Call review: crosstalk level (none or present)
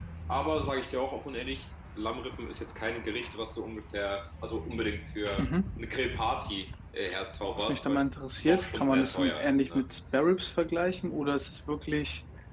present